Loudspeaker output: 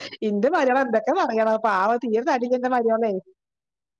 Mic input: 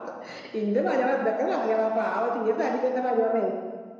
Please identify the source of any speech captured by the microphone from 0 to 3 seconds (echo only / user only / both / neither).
echo only